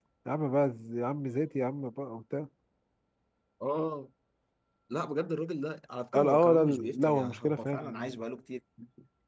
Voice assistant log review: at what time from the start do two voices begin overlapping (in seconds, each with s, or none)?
6.1 s